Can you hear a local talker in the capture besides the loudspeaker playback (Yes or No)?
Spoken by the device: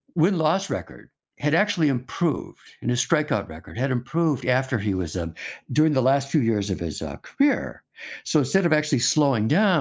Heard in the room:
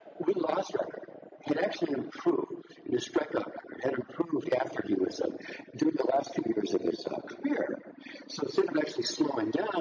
No